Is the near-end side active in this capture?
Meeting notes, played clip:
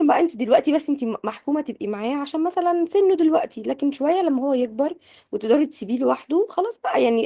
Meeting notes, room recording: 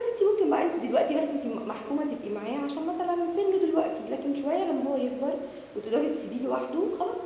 No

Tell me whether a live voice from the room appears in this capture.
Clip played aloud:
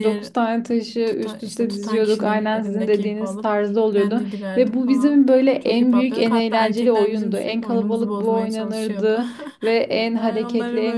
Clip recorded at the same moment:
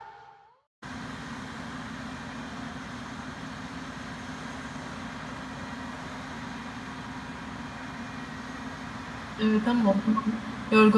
Yes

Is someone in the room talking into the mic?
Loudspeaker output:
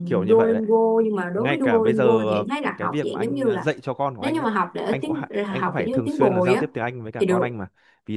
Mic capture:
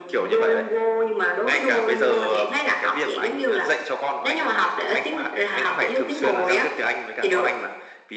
No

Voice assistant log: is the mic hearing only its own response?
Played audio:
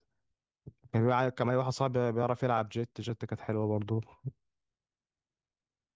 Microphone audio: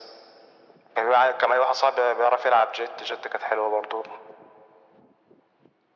Yes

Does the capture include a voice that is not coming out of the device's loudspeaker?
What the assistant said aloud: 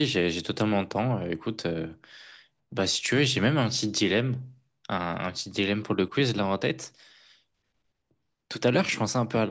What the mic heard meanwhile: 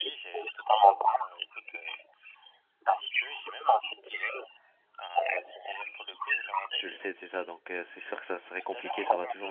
Yes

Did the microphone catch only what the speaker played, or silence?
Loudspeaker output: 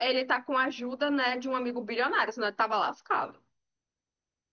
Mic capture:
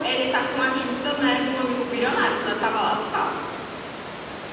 Yes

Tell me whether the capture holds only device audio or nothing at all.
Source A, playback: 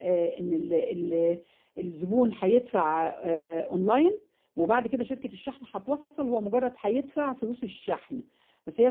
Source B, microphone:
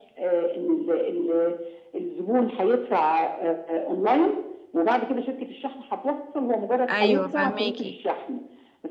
No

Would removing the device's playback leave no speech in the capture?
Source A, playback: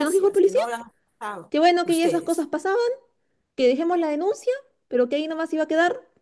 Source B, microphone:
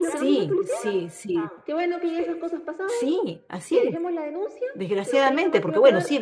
No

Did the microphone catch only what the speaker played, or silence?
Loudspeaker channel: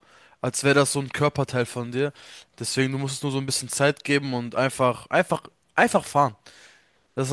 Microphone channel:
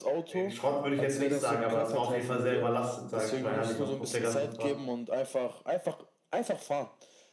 No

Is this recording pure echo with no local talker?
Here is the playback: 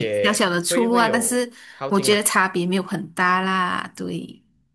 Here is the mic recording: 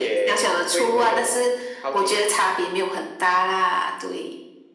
Yes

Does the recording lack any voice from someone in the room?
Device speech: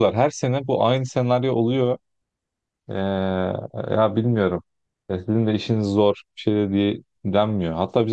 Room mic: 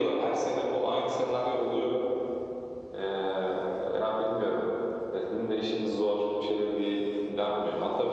Yes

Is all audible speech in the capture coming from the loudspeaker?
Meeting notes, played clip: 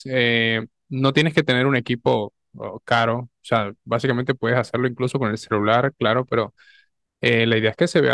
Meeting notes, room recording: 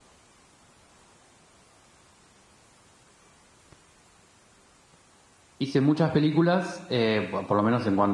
No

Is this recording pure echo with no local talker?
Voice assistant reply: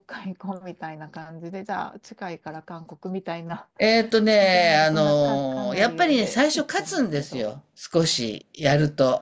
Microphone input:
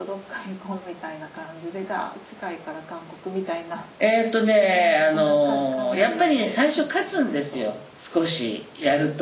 Yes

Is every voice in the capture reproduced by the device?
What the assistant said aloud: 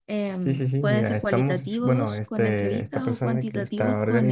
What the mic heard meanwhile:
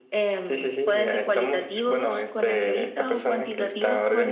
Yes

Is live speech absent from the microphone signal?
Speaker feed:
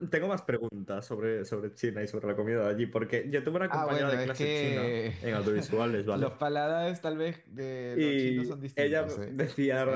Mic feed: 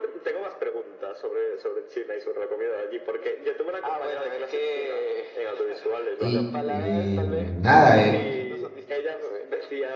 No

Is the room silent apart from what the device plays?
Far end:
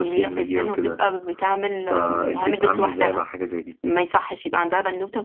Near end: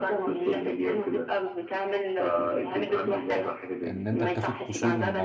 No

